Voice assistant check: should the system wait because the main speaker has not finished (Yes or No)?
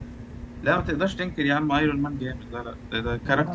Yes